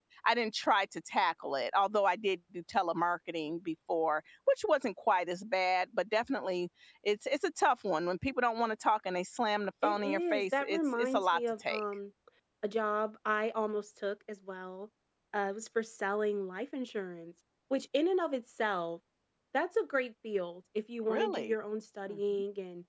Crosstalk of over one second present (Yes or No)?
Yes